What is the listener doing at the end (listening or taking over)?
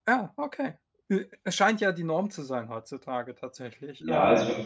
taking over